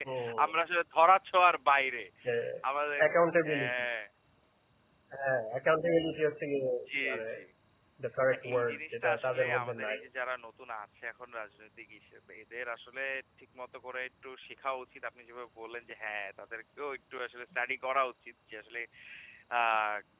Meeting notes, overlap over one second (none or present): present